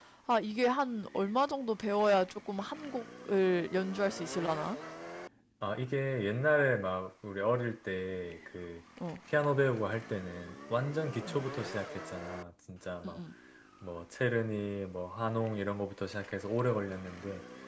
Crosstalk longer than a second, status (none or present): none